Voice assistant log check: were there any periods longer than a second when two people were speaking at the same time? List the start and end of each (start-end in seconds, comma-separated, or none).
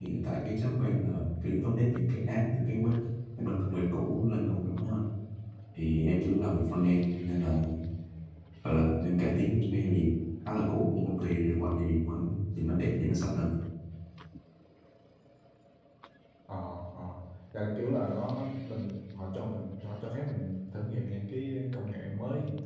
none